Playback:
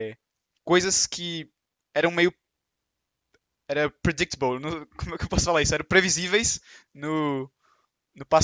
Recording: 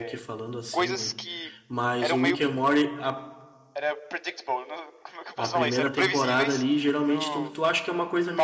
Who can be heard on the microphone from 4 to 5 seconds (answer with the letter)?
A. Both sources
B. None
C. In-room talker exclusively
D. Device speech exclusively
D